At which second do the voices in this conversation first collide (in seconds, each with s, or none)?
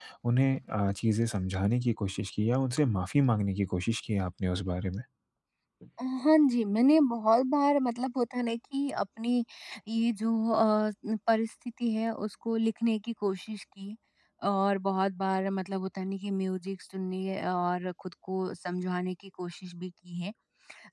none